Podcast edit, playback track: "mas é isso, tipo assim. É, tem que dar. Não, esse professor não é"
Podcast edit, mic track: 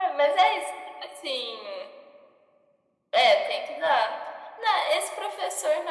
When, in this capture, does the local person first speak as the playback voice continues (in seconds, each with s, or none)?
none